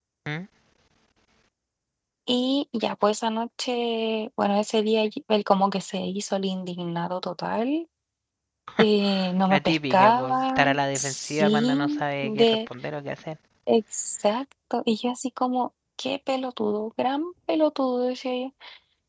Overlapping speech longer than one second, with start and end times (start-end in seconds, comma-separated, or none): 9.5-12.6